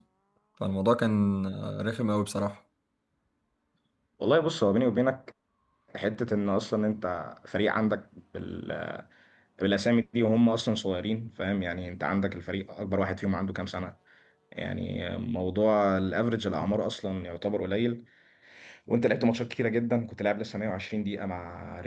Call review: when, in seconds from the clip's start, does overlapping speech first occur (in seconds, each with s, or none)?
none